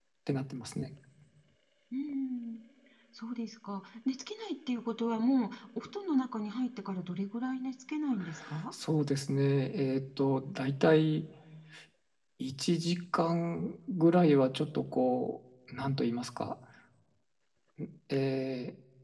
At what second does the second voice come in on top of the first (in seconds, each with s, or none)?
none